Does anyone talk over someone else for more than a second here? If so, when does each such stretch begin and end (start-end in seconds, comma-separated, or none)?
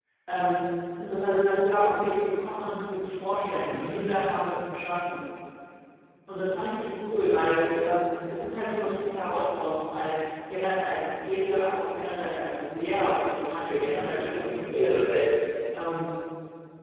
13.6-15.0